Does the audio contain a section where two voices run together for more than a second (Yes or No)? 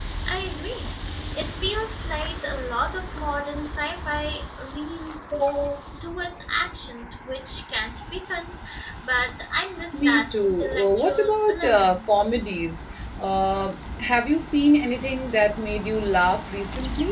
Yes